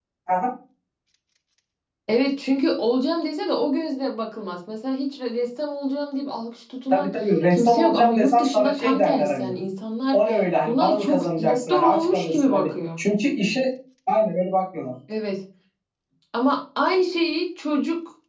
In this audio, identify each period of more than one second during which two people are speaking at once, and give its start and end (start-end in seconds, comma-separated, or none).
7.5-9.5, 10.7-12.7